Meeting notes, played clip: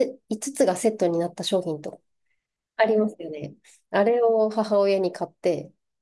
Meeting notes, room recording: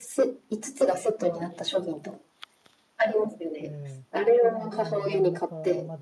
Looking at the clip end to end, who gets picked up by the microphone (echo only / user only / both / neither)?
both